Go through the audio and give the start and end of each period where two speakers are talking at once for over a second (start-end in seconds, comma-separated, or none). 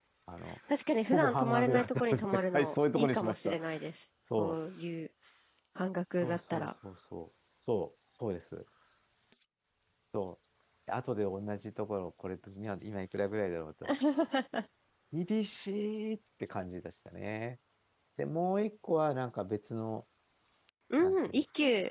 1.1-3.6